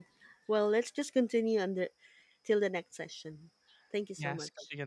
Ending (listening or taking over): taking over